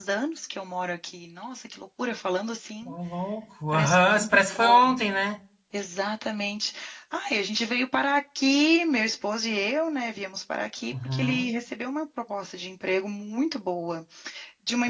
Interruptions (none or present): present